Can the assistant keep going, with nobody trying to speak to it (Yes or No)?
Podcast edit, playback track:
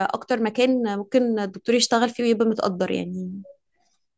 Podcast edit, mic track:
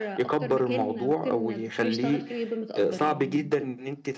No